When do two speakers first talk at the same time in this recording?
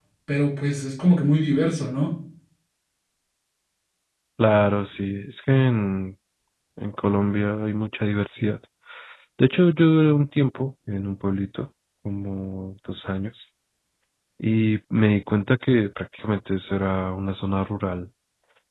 none

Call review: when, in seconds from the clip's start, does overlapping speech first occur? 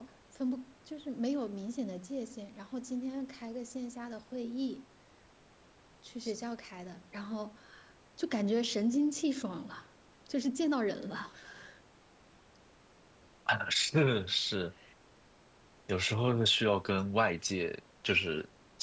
none

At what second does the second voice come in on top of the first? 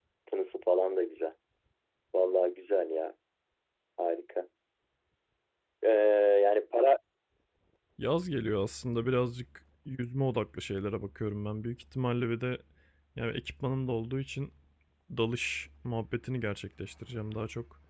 none

